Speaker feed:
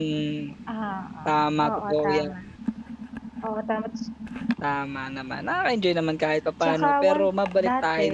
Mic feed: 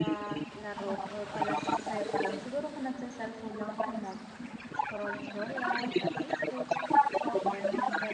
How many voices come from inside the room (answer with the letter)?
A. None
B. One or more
B